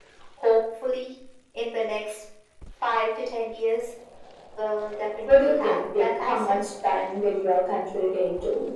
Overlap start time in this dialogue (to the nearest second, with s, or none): 5 s